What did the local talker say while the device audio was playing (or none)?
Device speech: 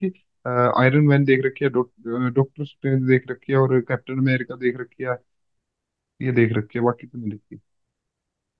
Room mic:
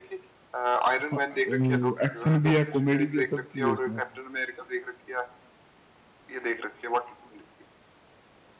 हाँ, वो एक्शन भी है कॉमेडी भी है सब चीज है उसमें